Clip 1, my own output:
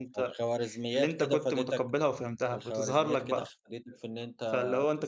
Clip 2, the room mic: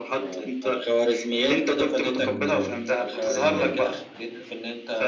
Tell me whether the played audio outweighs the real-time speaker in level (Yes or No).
Yes